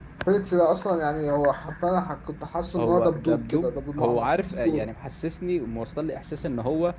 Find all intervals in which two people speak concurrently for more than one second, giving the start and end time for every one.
2.8-4.9

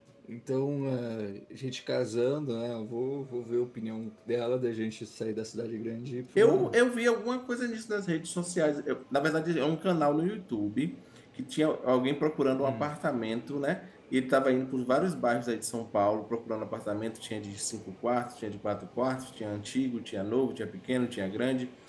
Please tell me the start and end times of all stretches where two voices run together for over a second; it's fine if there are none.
none

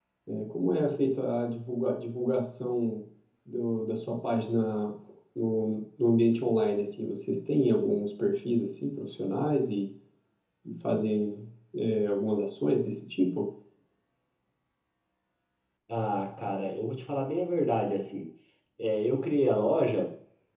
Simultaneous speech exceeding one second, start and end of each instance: none

